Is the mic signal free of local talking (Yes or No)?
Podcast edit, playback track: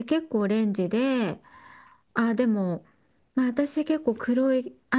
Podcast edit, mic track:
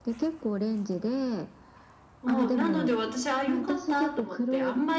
No